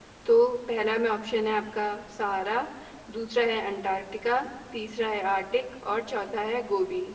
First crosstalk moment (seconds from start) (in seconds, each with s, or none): none